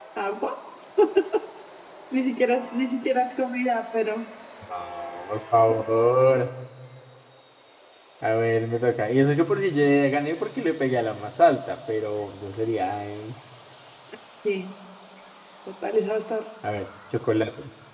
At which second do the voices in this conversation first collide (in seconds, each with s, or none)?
none